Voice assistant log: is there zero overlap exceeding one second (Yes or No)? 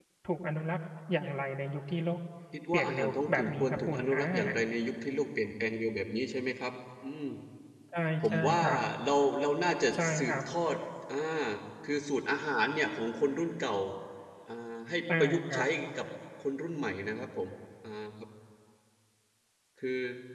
No